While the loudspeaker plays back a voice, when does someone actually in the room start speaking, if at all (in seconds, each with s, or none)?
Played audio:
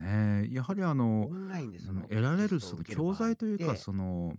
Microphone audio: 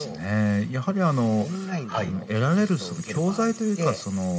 1.9 s